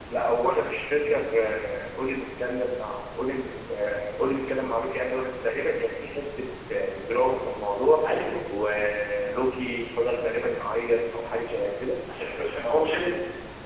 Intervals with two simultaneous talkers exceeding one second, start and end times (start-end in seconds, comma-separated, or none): none